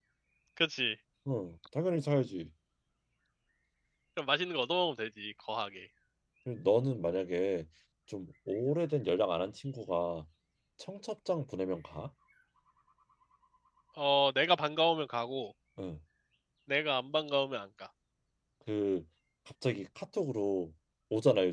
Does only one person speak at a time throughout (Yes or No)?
Yes